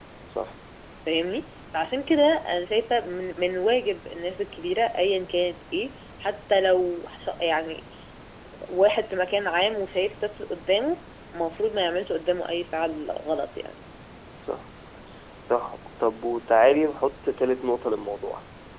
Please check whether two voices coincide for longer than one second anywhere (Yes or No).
No